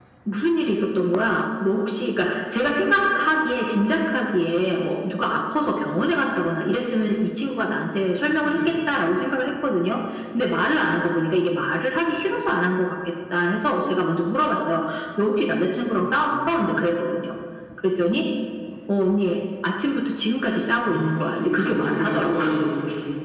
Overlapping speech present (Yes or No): Yes